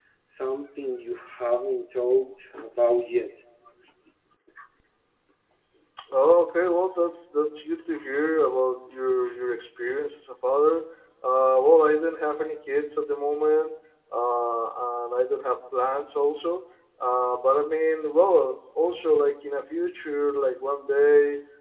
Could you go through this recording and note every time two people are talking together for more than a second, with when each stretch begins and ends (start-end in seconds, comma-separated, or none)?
none